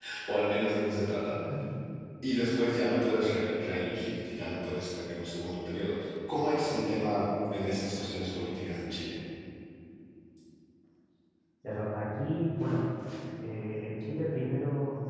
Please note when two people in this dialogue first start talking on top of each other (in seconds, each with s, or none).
none